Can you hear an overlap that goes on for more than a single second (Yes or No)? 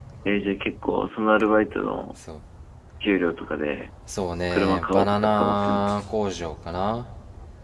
Yes